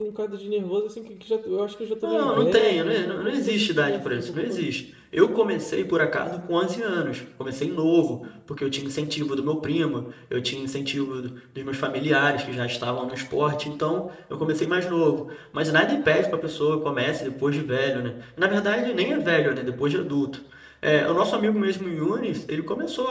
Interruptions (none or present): present